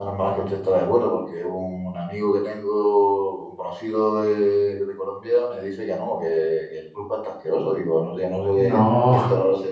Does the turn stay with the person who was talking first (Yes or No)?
Yes